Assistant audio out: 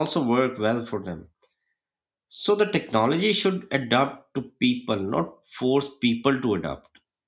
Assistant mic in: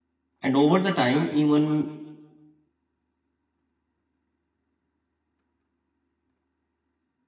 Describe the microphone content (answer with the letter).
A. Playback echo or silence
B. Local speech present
B